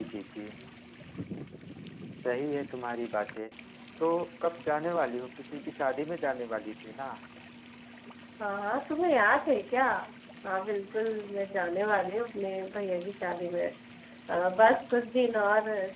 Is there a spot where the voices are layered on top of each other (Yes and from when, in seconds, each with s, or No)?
No